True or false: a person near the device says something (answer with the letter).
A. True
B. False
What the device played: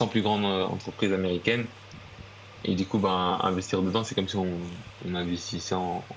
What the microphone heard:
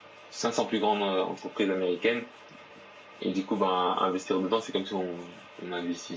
B